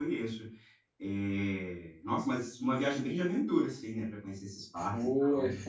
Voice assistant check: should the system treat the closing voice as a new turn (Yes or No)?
Yes